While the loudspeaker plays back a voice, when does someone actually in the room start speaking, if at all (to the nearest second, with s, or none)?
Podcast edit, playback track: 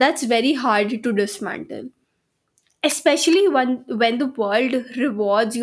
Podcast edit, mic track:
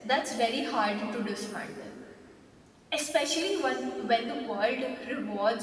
none